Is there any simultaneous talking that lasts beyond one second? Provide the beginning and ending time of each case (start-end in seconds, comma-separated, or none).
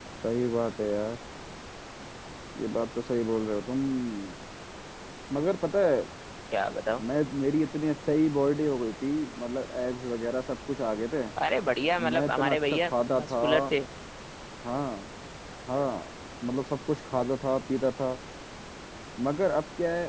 12.1-13.4